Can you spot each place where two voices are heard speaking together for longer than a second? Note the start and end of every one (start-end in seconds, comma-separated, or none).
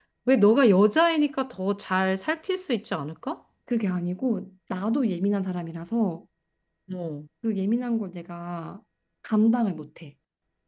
none